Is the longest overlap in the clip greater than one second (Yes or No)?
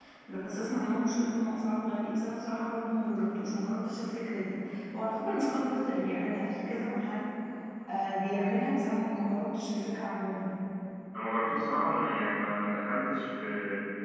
No